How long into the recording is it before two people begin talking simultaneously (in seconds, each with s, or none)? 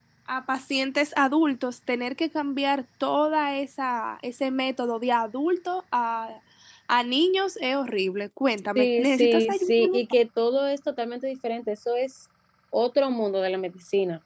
8.8 s